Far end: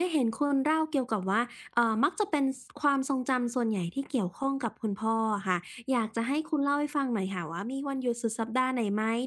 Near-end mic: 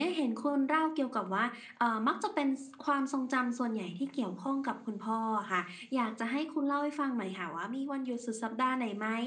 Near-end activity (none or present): none